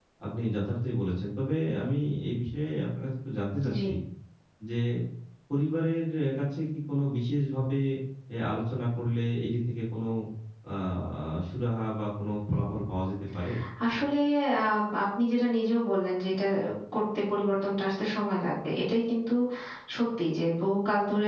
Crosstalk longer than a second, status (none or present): none